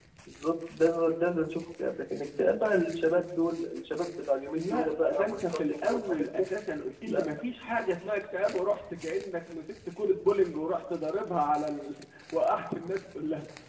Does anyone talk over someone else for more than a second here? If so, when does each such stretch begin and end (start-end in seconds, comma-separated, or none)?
4.5-6.5